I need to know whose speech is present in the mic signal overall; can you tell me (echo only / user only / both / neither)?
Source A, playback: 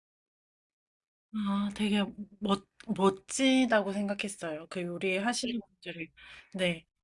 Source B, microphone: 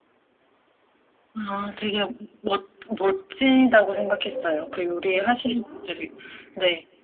both